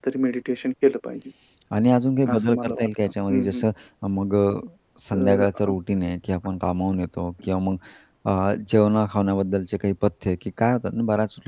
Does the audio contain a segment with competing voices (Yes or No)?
Yes